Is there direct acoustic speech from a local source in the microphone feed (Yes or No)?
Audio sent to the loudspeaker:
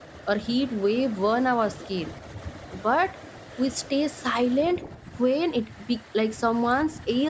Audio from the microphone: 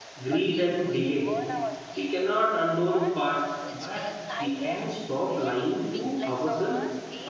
Yes